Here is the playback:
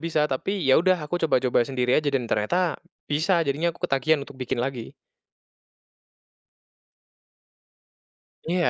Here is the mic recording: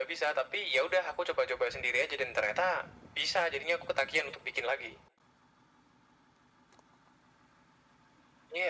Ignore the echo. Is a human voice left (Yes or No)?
No